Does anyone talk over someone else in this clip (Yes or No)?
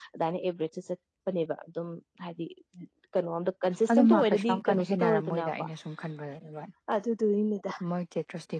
Yes